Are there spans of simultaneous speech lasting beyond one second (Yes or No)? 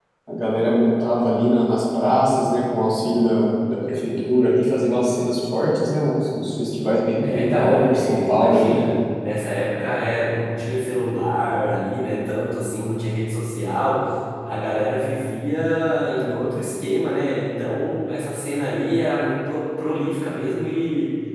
Yes